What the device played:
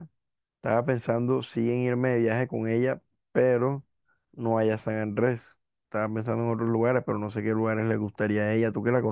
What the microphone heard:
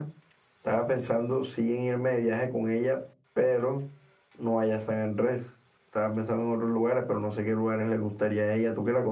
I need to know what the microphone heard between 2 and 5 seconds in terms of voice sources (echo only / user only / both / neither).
echo only